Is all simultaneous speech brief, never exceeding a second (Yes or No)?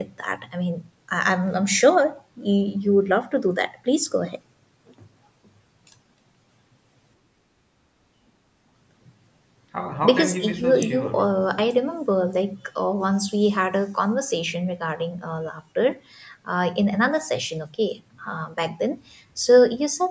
No